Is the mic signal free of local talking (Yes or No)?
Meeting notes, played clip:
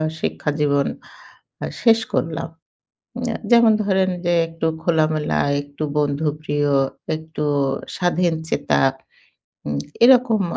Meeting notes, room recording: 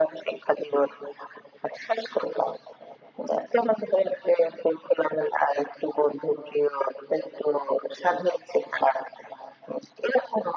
Yes